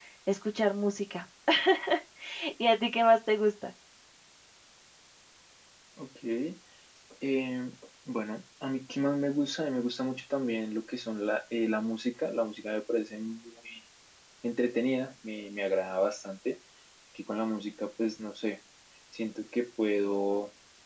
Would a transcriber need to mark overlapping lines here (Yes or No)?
No